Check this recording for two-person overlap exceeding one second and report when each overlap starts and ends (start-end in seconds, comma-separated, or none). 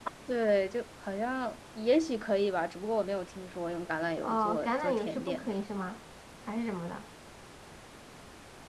4.2-5.7